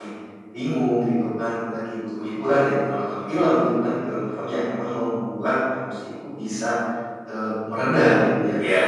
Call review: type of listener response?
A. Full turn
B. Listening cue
A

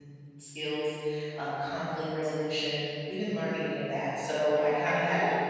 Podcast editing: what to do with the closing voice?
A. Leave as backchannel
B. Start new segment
B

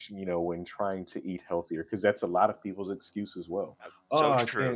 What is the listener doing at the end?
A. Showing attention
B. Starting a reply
A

